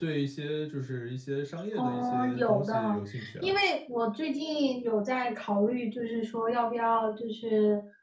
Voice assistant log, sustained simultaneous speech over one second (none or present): present